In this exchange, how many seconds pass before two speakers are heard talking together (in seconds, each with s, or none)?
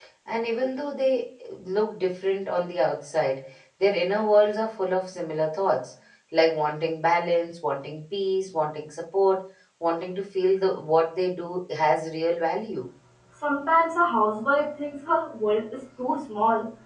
none